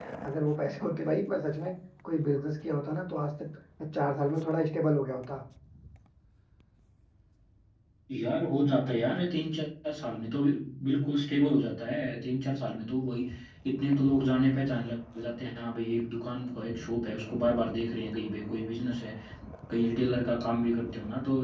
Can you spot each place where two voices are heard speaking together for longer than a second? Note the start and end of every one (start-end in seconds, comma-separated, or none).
none